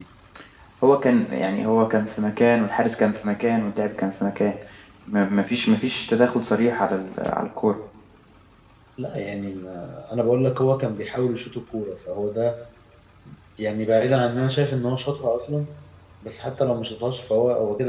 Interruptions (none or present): none